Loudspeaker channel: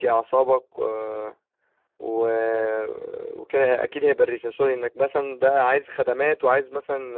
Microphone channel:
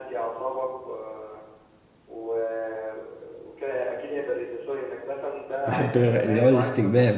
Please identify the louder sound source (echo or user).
user